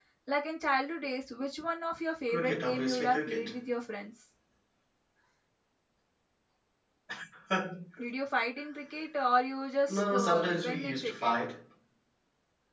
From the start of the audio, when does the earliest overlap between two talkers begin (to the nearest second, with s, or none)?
2 s